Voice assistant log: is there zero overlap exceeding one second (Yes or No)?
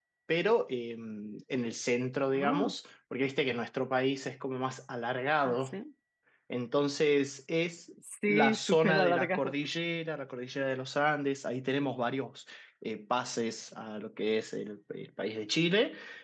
No